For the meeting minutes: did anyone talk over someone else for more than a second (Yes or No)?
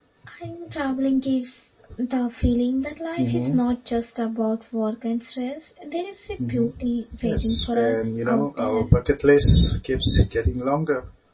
Yes